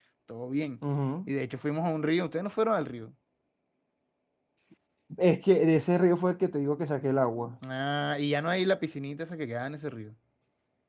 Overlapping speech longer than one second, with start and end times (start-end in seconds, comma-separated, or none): none